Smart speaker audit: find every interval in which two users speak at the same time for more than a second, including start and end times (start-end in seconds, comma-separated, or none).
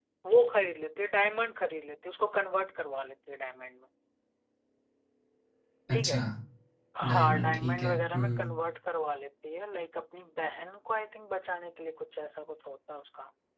7.1-8.5